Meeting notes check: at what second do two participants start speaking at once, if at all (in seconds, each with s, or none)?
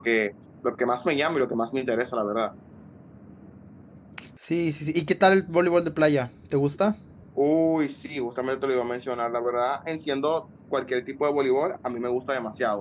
none